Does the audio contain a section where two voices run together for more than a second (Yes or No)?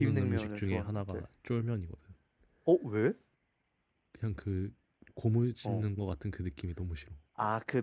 Yes